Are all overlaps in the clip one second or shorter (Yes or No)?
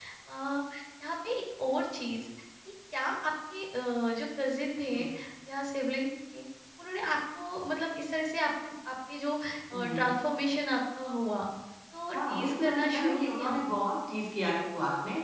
No